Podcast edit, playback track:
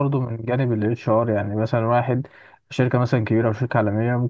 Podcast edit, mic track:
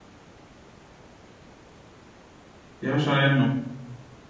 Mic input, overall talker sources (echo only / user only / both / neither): user only